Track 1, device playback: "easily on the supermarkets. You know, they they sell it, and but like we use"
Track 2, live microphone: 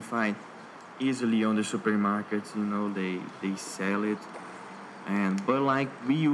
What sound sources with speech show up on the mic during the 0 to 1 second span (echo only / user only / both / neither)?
echo only